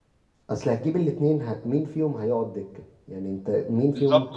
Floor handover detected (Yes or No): Yes